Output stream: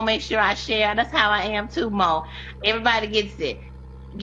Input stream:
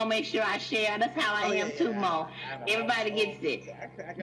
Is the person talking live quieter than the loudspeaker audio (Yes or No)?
Yes